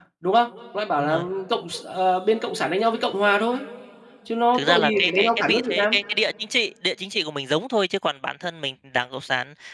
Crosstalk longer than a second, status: present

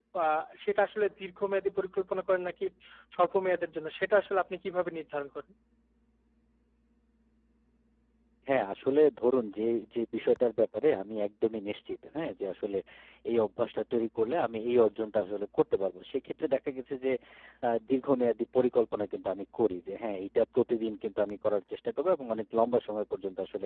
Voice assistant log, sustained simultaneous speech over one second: none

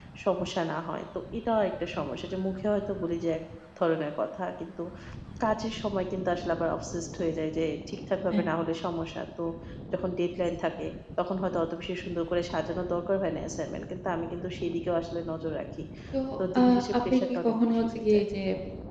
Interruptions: present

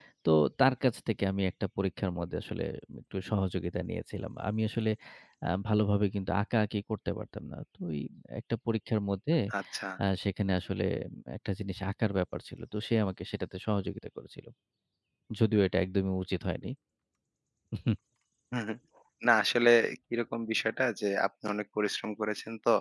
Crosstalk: none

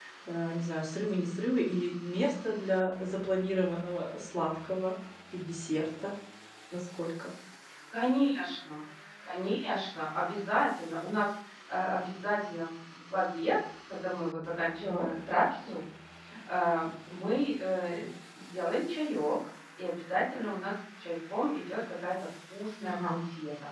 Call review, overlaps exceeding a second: none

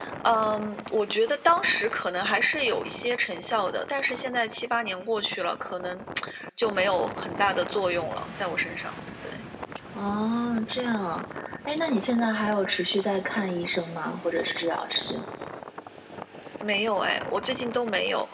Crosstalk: none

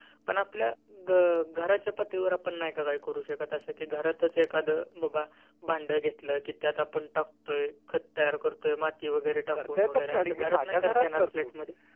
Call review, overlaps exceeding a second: present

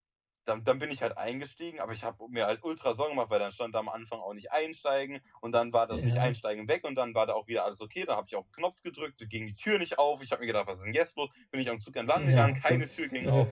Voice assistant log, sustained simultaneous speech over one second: present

